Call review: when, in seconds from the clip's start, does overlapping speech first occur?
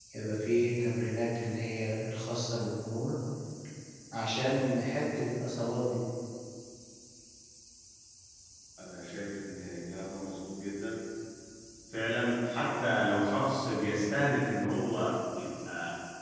none

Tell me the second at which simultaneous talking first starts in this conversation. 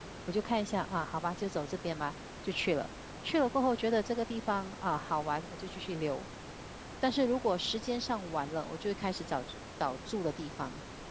none

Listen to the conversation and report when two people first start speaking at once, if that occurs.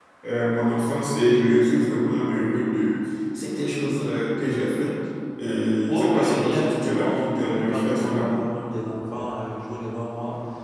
5.9 s

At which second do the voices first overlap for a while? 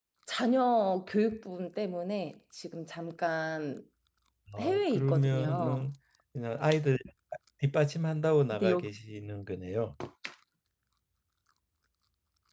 4.6 s

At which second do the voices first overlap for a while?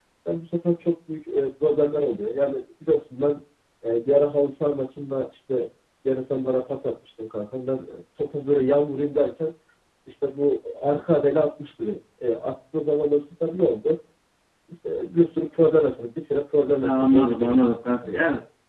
16.8 s

